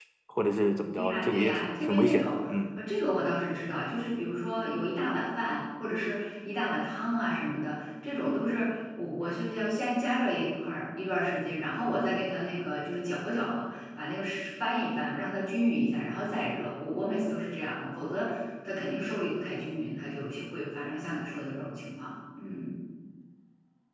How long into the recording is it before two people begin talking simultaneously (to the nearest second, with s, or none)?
1 s